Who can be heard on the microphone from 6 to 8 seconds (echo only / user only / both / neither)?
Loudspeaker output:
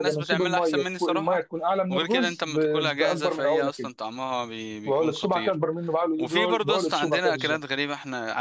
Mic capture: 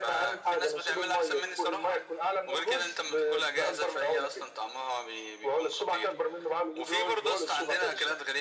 echo only